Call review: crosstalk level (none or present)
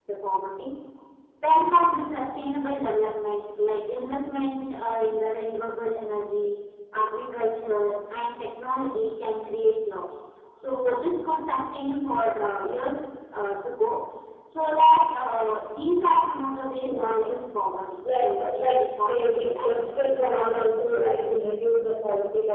present